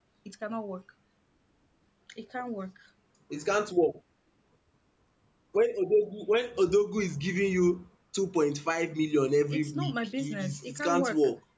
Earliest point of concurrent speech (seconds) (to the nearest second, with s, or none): 10 s